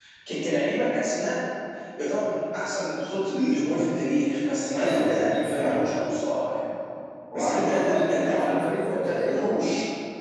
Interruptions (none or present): present